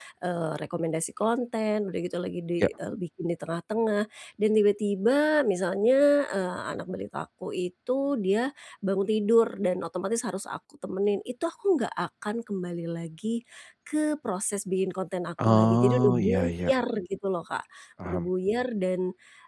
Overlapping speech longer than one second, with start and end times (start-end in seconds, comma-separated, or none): 15.4-16.7